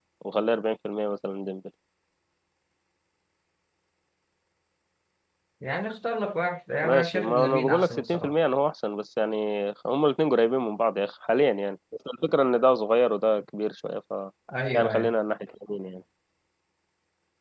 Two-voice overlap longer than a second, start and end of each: 6.8-8.3

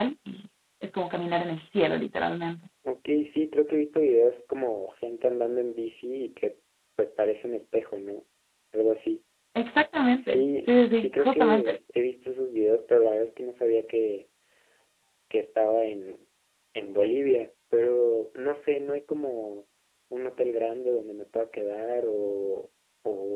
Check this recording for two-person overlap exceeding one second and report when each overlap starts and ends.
10.1-11.8

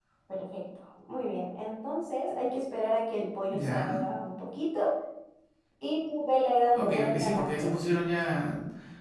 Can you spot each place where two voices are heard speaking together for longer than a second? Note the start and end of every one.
6.7-8.1

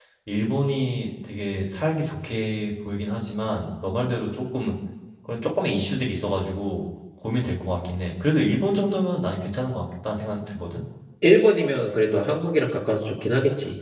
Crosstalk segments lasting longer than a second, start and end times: none

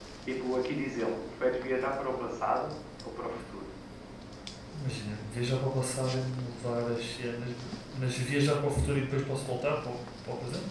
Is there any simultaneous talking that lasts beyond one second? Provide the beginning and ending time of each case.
none

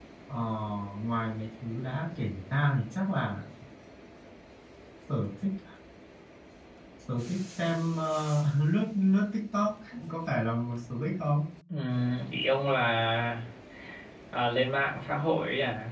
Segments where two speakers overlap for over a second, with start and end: none

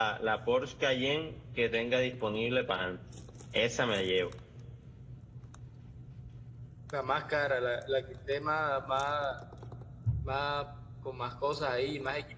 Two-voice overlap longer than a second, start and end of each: none

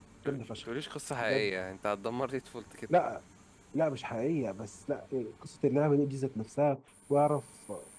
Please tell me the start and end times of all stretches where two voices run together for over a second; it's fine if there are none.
none

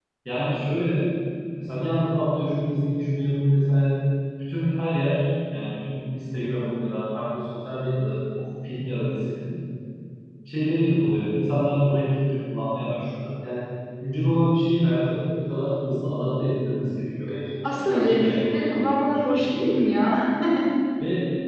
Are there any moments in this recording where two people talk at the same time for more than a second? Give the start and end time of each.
17.8-19.5

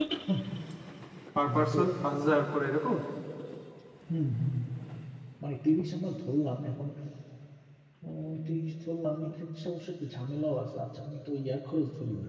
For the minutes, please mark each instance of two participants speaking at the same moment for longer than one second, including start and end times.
none

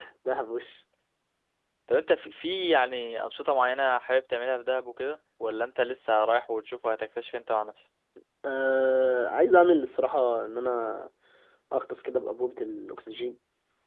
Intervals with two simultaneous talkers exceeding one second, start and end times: none

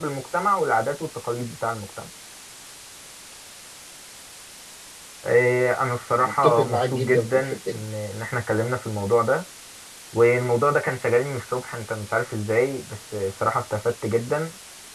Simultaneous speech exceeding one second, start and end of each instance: 6.2-7.8

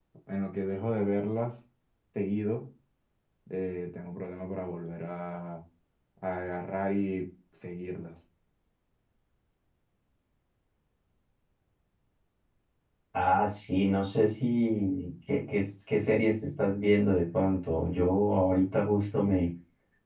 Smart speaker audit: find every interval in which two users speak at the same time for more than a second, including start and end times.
none

